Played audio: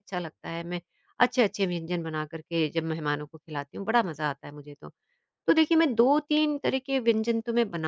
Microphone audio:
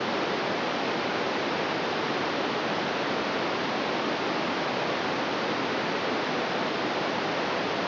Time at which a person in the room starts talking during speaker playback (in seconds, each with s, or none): none